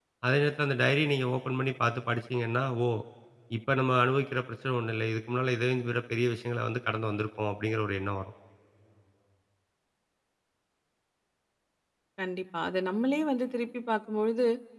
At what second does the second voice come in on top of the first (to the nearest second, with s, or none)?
none